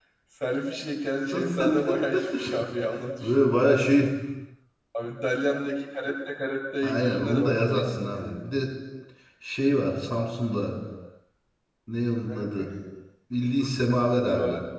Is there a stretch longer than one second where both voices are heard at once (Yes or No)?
Yes